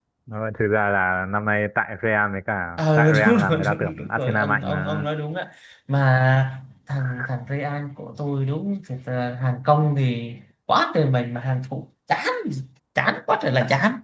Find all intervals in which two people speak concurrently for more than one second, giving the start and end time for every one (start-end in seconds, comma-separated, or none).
2.8-5.0